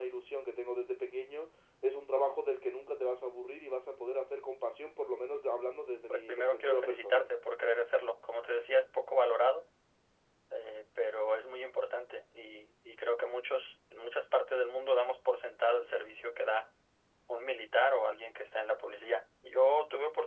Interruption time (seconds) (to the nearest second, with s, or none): 6 s